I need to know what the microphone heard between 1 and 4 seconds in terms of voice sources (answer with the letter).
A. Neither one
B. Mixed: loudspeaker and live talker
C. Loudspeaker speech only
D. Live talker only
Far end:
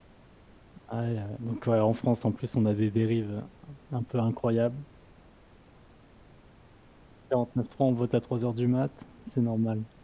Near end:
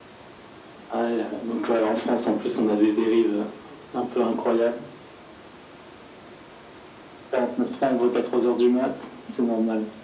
C